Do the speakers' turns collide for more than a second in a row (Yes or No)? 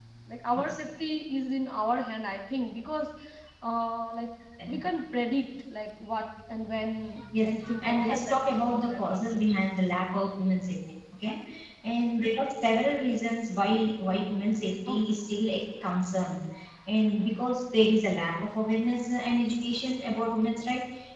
Yes